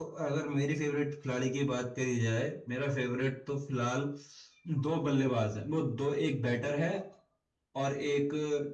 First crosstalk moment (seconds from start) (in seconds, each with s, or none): none